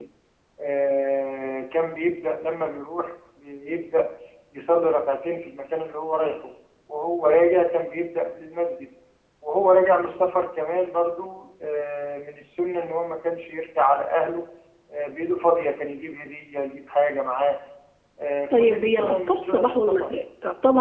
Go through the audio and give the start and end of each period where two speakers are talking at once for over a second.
18.5-20.1

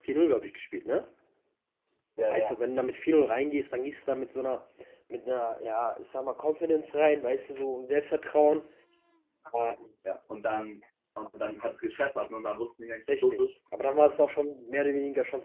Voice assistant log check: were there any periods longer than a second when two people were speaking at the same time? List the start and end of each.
none

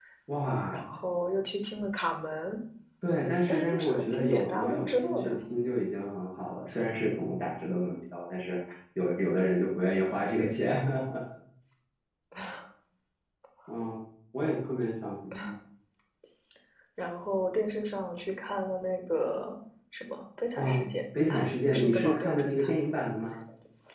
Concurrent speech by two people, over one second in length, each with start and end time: 3.5-5.4, 21.3-22.7

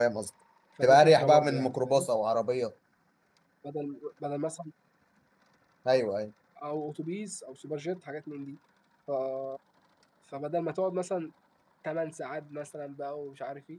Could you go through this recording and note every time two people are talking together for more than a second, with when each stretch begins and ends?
0.8-2.1

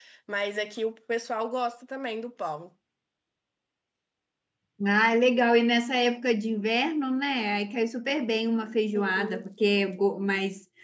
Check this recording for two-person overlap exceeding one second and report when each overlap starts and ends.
none

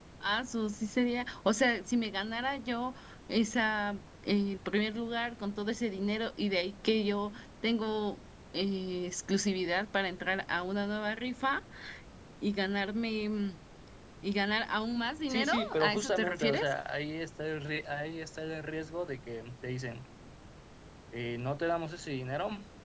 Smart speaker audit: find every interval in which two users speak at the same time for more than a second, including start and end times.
15.3-16.7

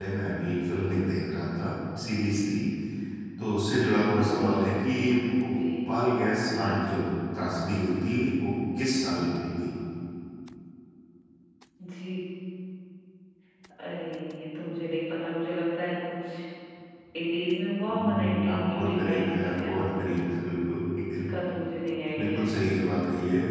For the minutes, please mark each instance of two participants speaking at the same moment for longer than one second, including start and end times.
17.9-20.0

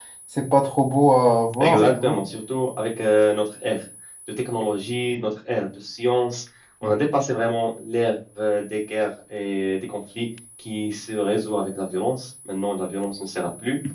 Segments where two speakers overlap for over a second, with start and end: none

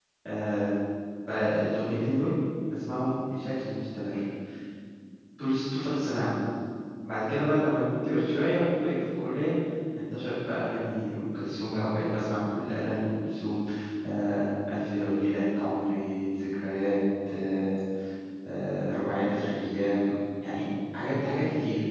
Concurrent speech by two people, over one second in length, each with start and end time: none

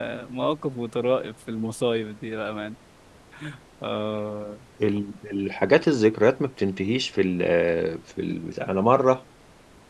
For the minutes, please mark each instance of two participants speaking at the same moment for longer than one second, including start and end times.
none

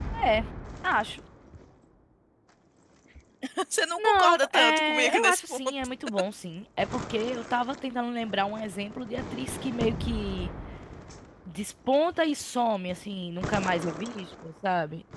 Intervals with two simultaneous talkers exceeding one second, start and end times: 4.0-5.6

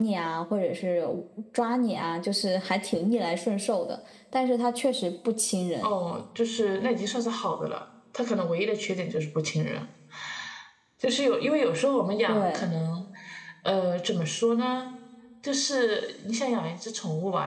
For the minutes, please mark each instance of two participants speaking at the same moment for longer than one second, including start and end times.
none

